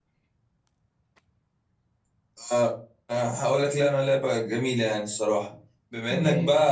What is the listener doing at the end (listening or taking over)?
listening